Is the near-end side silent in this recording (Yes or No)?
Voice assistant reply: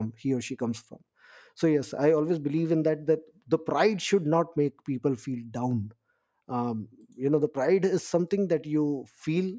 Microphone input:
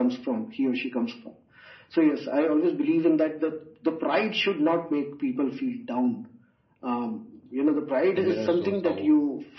No